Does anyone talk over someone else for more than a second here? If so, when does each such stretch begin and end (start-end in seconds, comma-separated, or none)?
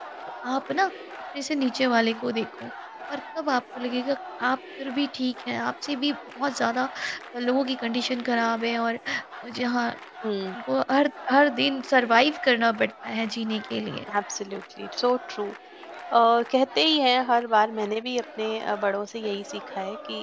none